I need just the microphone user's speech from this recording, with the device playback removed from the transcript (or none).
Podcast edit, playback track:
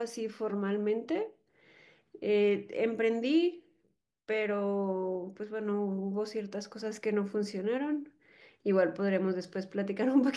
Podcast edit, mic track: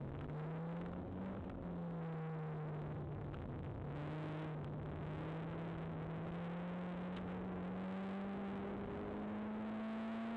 none